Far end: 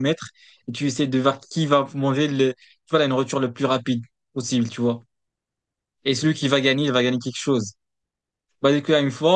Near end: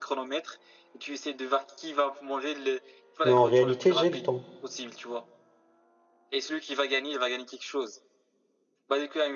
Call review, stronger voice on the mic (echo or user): user